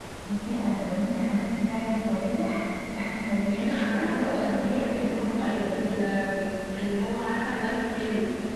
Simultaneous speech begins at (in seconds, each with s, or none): 3.5 s